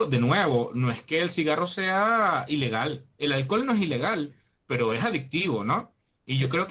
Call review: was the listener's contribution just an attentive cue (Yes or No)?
Yes